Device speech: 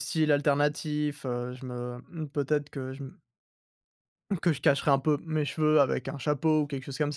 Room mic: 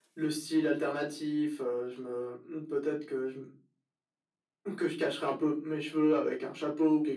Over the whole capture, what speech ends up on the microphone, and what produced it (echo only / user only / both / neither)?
echo only